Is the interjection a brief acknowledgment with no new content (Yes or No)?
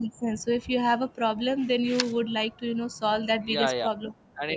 No